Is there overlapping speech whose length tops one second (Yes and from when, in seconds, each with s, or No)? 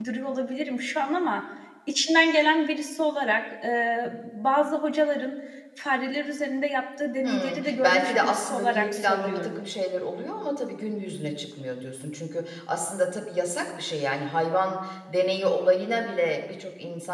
Yes, from 7.2 s